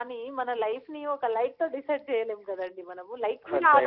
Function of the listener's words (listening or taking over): listening